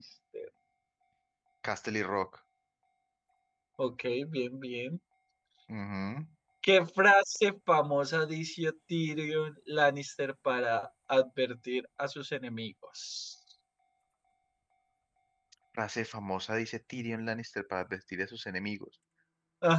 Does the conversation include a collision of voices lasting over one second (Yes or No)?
No